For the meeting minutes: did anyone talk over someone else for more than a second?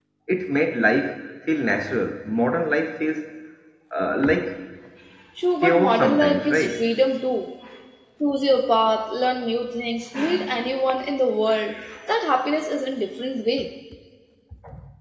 Yes, from 5.6 s

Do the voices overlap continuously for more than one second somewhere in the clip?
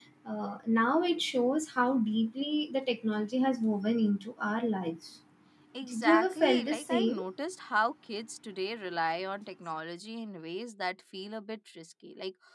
Yes, from 5.8 s

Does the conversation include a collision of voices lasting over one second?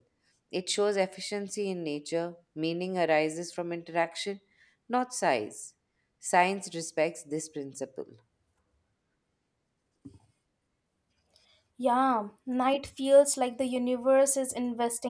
No

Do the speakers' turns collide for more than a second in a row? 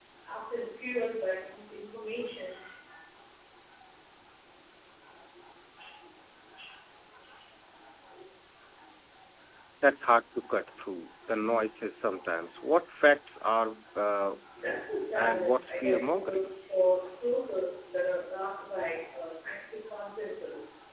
Yes, from 15.2 s

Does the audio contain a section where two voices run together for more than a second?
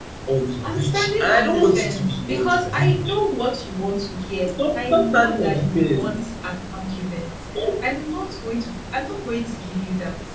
Yes, from 0.6 s

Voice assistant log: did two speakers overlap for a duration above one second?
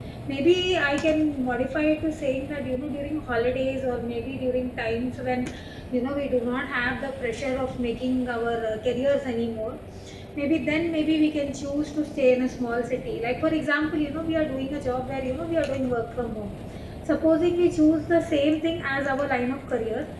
No

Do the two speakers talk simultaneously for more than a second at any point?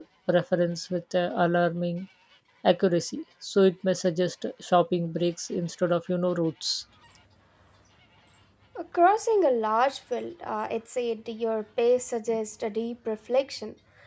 No

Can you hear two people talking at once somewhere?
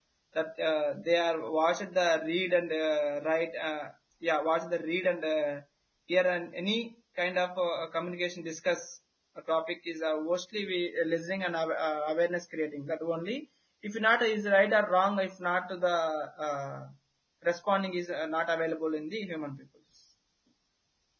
No

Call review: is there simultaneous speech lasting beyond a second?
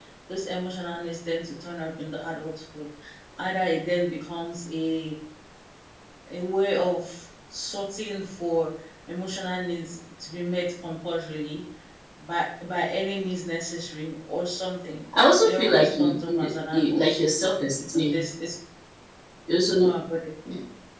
Yes, from 15.4 s

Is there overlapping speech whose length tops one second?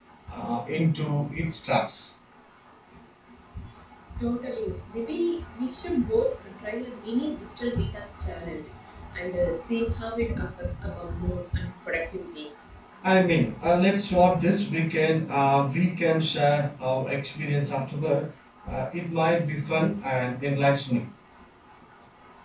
No

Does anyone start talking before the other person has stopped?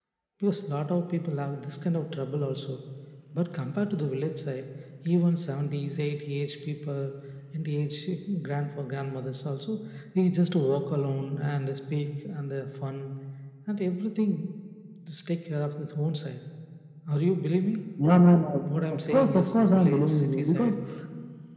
Yes, from 19.0 s

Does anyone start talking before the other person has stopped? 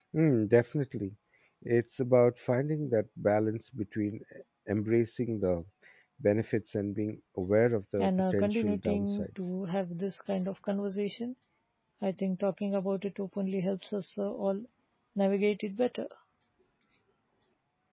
Yes, from 8.0 s

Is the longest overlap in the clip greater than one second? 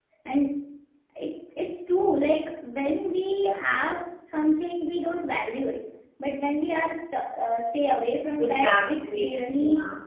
Yes, from 8.4 s

